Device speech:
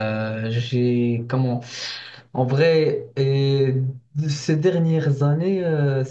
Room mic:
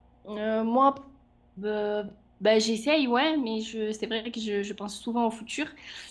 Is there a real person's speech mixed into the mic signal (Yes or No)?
Yes